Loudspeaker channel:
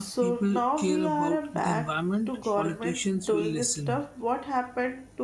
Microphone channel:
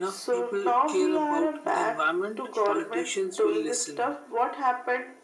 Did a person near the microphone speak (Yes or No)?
No